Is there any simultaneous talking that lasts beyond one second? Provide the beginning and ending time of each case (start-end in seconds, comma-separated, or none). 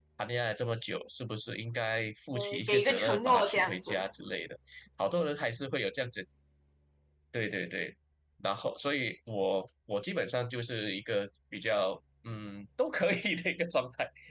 2.3-4.0